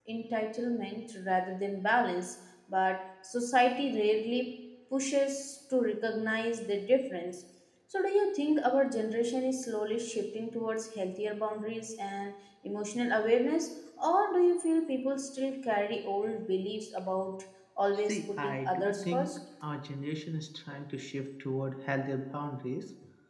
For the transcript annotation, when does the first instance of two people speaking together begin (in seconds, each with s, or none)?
18.1 s